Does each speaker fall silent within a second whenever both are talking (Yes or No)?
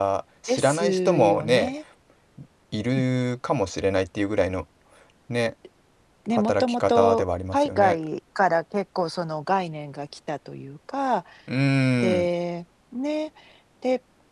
No